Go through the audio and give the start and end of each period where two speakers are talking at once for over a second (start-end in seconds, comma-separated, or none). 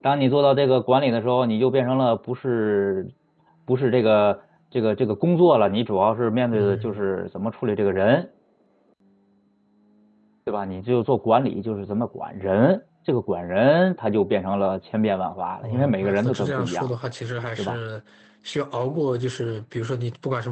15.6-16.9